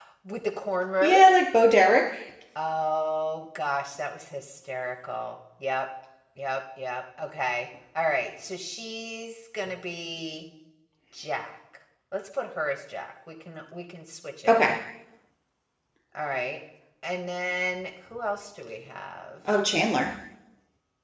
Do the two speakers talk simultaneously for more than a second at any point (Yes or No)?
No